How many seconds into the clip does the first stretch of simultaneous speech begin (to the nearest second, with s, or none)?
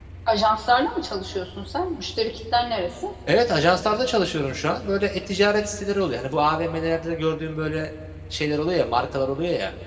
none